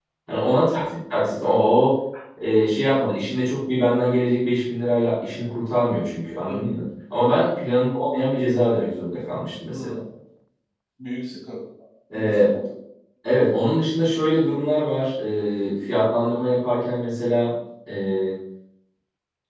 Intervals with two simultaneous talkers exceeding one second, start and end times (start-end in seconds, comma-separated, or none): none